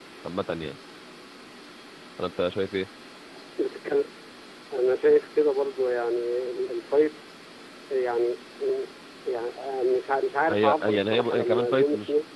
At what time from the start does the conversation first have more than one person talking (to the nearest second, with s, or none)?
10 s